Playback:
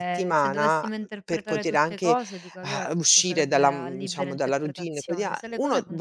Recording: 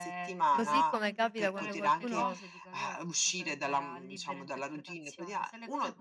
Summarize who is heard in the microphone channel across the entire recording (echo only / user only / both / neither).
both